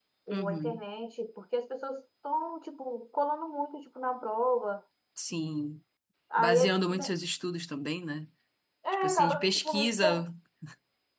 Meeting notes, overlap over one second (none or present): present